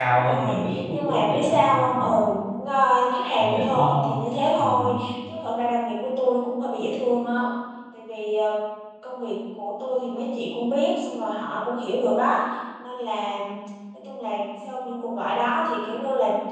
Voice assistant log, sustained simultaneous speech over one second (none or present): present